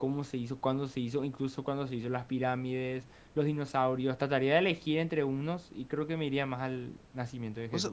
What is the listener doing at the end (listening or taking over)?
taking over